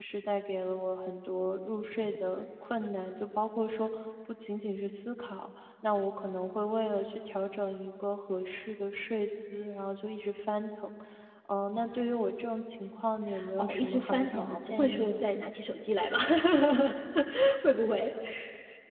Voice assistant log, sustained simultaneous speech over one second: present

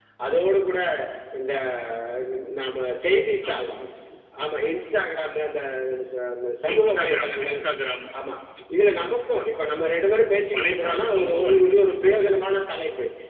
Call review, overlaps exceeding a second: present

